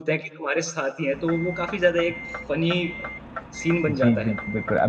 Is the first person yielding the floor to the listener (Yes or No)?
Yes